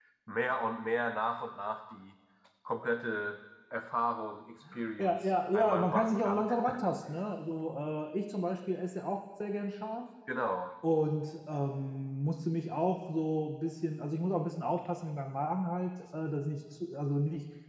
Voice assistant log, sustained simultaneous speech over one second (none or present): present